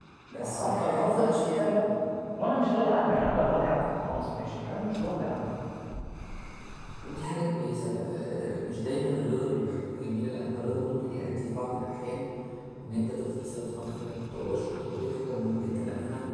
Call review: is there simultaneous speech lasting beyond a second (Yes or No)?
Yes